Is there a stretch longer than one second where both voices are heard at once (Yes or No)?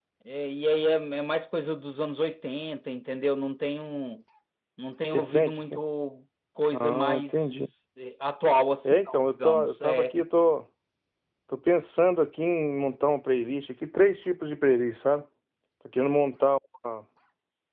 Yes